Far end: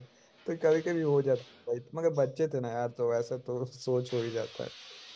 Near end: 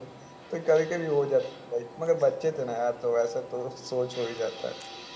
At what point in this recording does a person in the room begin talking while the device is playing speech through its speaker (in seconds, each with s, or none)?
none